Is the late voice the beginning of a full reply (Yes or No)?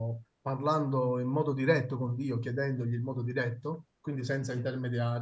No